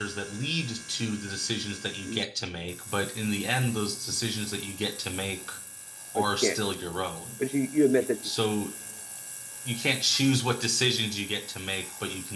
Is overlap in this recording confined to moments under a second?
Yes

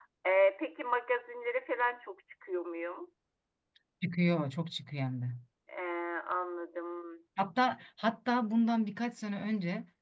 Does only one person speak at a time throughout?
Yes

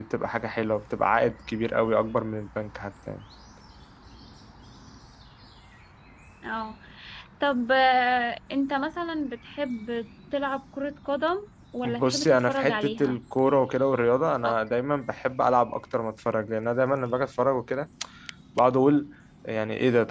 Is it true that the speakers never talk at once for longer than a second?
No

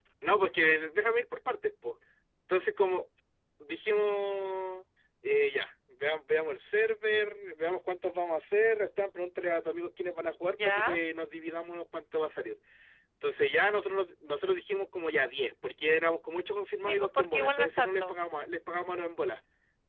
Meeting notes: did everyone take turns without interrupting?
No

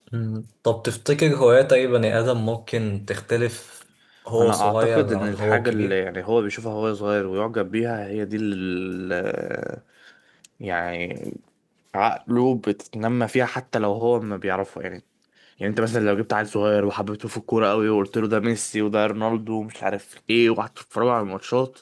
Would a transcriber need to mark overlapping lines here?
Yes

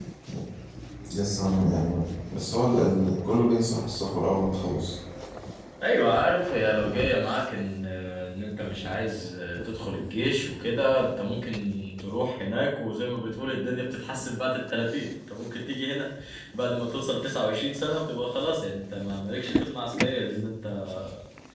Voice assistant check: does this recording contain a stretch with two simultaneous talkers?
No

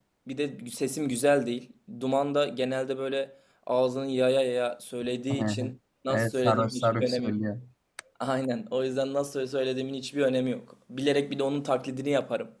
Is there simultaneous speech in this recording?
Yes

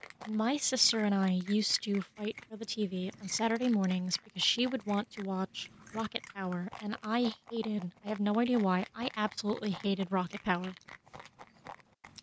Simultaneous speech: No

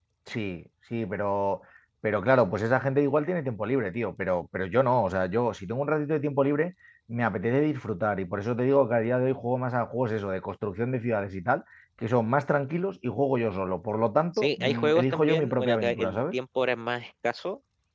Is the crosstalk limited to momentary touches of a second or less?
No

